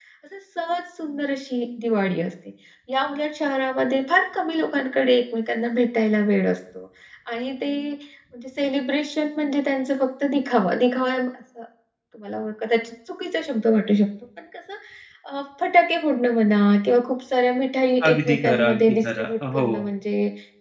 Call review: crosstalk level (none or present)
present